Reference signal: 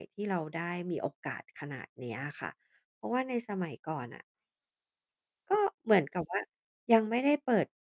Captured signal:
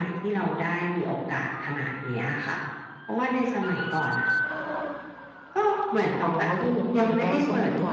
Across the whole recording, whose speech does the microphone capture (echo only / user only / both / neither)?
both